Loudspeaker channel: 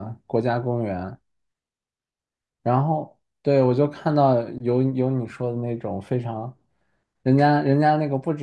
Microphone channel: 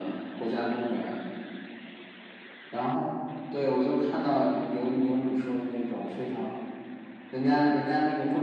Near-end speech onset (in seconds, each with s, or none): none